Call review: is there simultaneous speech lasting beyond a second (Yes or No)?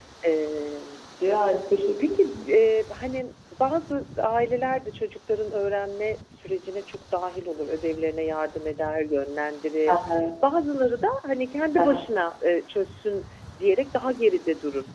No